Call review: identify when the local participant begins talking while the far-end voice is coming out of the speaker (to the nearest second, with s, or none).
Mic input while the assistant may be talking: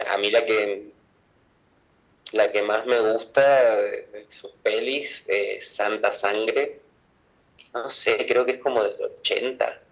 none